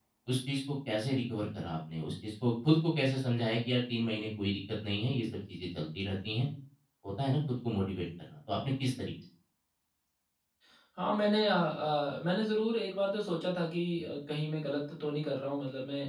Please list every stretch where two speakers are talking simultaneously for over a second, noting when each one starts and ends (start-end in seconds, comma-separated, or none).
none